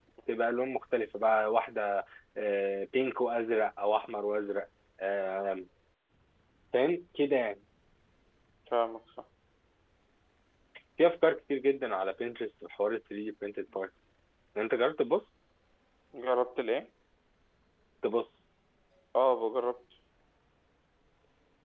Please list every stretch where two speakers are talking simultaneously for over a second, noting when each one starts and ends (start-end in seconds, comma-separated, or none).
none